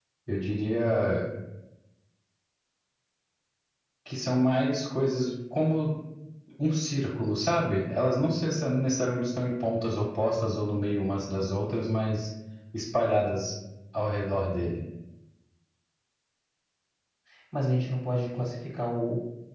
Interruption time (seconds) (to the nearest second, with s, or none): none